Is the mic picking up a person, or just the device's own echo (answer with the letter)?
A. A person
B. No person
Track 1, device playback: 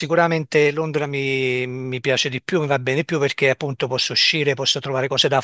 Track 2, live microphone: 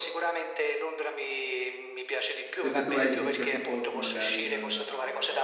A